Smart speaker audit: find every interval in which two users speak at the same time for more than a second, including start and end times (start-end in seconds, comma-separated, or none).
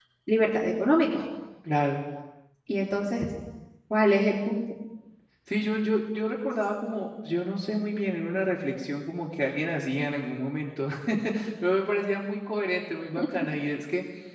none